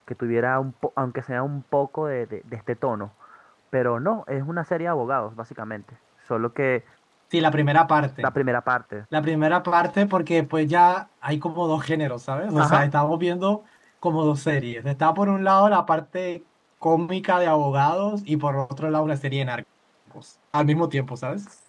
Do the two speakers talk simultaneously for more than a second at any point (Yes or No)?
No